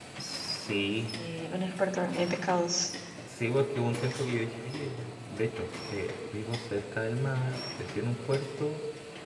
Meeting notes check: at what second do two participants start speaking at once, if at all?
none

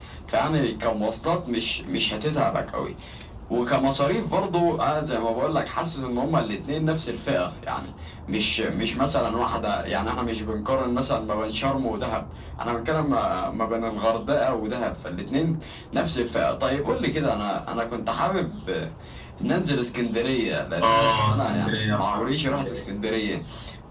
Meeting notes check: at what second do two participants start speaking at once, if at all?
20.8 s

